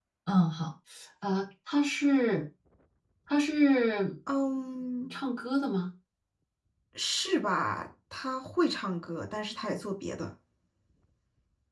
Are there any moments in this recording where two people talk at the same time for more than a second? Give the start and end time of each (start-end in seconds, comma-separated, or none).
none